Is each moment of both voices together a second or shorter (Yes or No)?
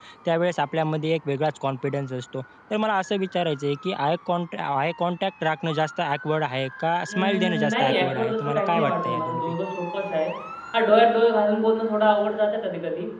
No